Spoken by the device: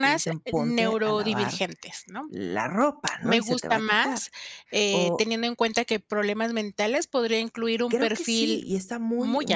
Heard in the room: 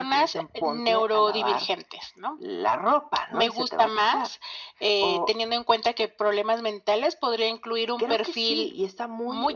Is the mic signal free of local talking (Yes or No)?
Yes